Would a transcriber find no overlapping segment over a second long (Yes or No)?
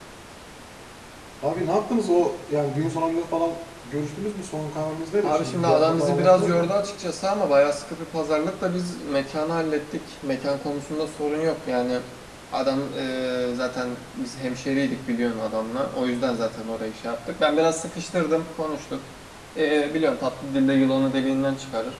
No